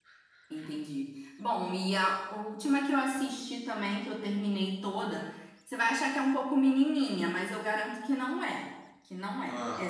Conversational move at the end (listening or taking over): listening